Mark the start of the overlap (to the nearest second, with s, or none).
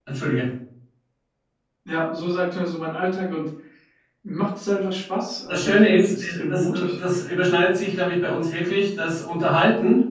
5 s